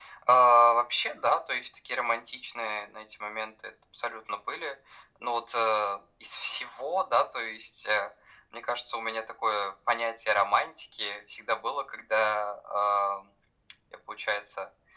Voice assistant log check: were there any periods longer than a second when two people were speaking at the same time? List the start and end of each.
none

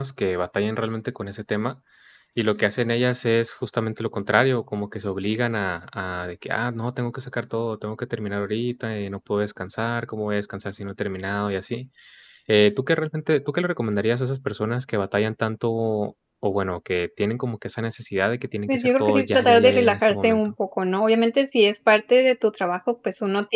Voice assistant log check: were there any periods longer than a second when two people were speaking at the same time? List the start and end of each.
18.7-20.5

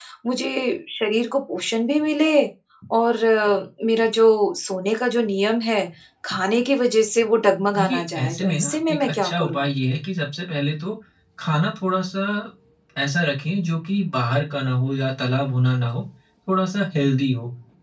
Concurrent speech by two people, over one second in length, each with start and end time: 7.8-9.7

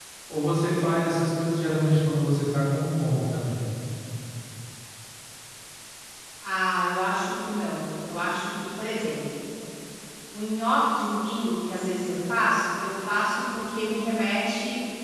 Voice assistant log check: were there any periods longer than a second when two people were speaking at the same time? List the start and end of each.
none

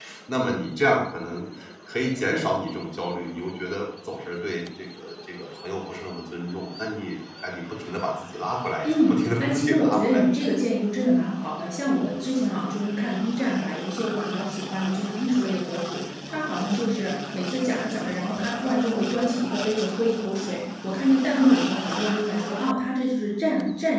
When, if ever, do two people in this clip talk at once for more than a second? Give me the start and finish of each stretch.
8.8-10.4

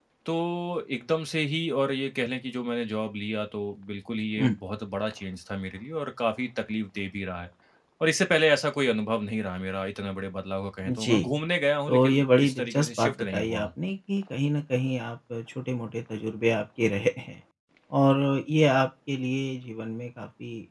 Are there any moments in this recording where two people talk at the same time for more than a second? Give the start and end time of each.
11.9-13.7

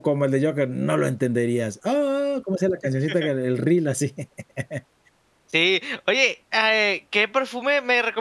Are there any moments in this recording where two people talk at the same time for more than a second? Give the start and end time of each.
none

